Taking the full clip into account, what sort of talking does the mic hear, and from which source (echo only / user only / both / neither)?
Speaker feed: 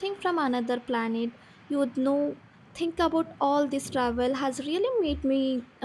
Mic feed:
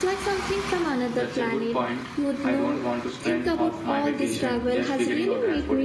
both